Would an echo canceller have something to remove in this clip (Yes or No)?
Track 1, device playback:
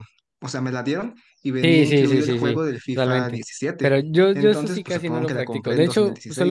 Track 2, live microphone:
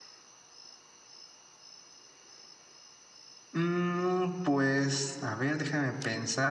No